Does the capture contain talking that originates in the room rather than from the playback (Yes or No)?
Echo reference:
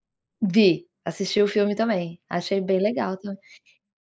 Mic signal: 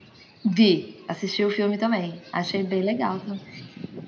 No